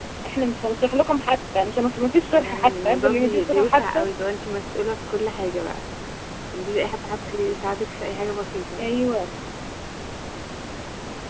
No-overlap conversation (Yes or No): No